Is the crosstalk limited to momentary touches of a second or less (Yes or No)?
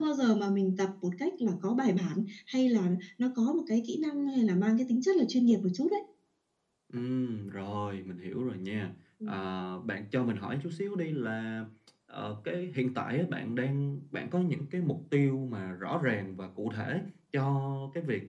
Yes